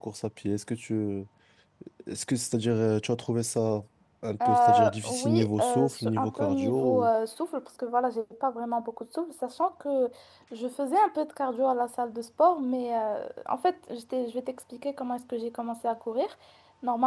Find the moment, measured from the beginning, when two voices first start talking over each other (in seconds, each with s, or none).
4.5 s